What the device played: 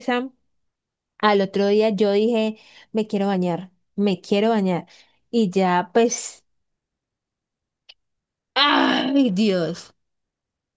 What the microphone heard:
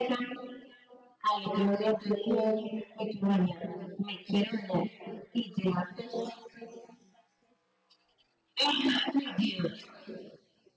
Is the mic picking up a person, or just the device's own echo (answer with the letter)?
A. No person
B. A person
A